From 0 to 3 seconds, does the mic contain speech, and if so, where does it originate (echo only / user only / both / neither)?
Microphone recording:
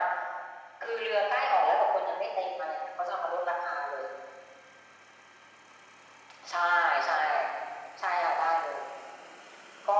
echo only